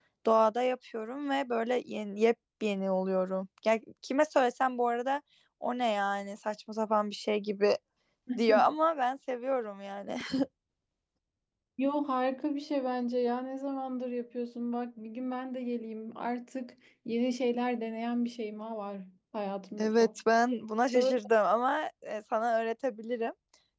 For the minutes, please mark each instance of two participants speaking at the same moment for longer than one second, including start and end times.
none

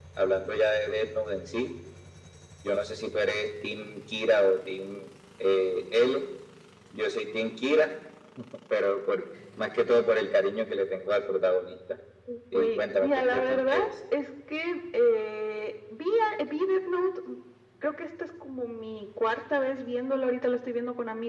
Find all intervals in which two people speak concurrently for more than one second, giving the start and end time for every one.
12.5-13.9

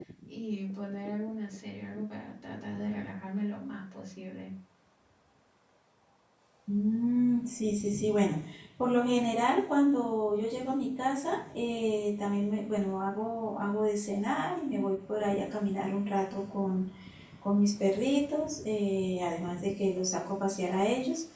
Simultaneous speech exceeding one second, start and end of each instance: none

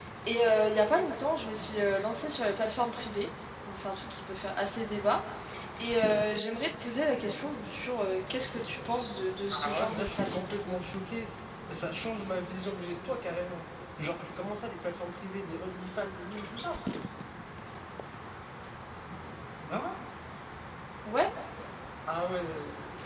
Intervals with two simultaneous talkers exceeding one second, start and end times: 9.5-10.8

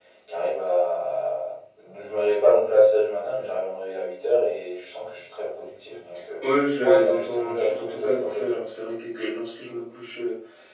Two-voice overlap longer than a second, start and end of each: 6.7-8.6

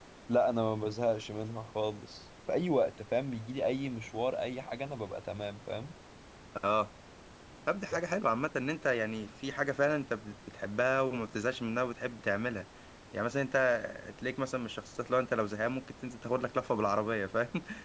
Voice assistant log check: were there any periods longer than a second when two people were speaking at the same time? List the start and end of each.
none

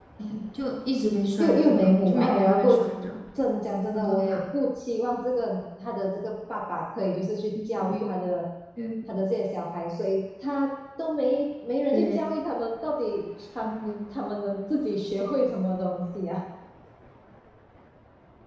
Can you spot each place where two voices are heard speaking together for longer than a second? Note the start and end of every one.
1.4-2.8

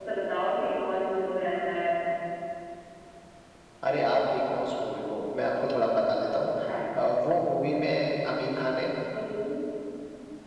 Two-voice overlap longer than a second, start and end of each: none

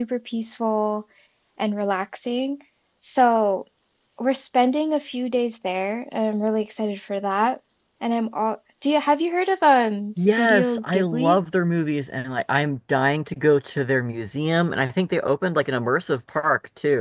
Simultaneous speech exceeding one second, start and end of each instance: 10.2-11.4

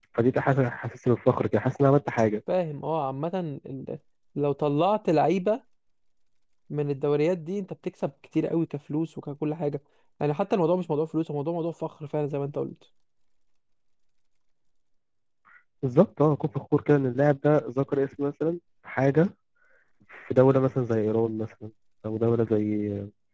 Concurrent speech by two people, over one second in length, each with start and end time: none

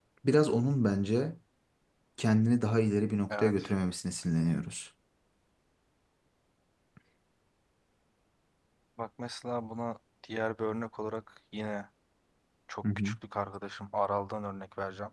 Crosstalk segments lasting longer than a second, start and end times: none

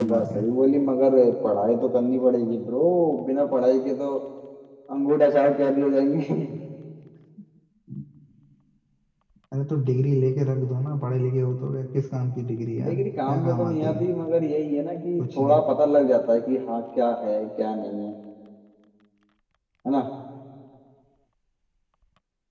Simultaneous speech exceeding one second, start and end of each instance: 12.8-14.1

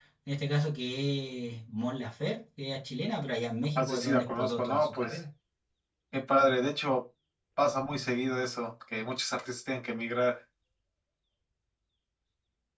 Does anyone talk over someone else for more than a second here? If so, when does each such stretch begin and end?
3.8-5.2

